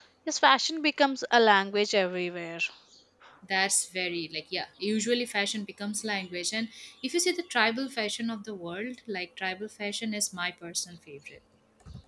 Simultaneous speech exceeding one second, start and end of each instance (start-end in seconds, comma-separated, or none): none